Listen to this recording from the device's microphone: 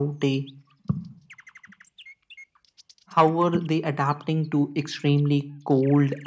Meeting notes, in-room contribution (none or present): none